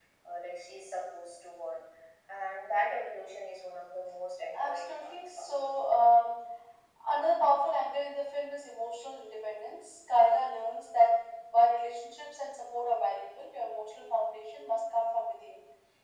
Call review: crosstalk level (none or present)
present